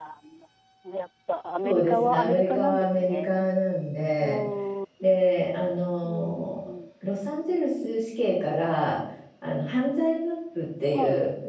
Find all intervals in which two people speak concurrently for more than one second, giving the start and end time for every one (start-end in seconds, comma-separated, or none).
1.6-3.3